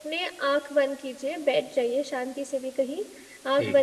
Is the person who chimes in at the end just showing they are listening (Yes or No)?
Yes